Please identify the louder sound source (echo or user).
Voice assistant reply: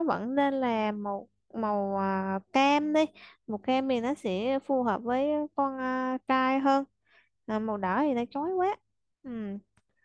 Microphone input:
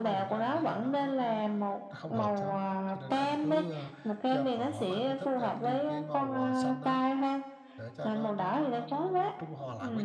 echo